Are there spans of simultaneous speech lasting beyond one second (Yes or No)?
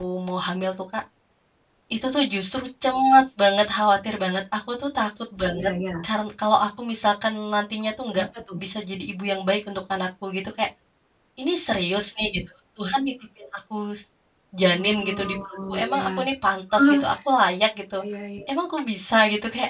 Yes